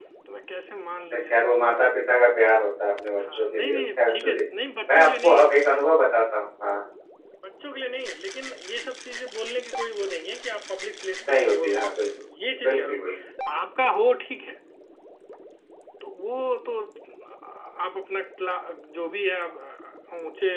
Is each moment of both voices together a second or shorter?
No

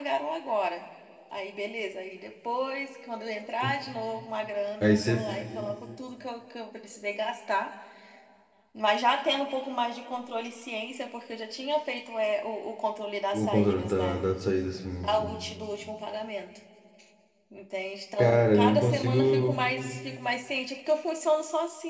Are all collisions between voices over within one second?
No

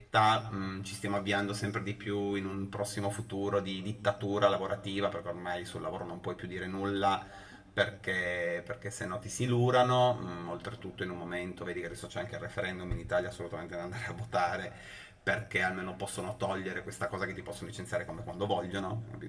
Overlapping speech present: No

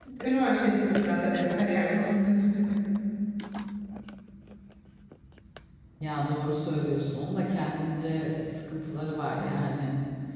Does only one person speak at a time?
Yes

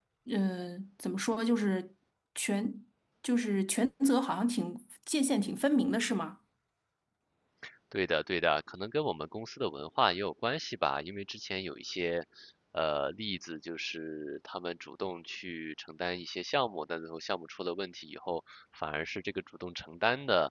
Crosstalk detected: No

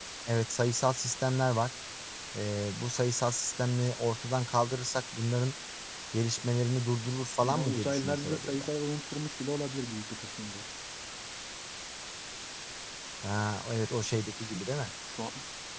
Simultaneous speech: Yes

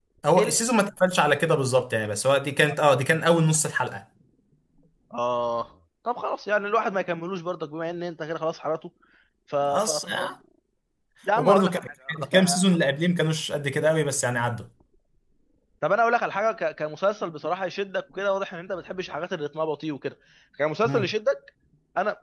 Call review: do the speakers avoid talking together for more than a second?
No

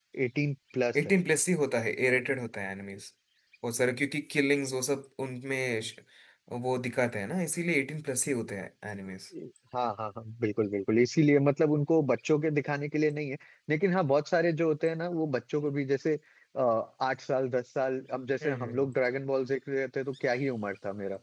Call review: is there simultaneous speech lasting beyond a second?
No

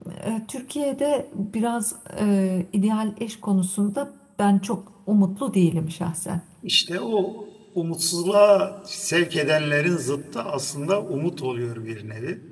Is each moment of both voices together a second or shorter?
Yes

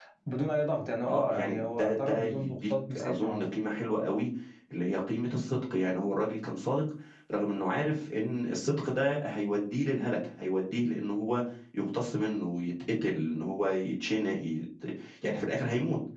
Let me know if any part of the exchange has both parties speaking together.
Yes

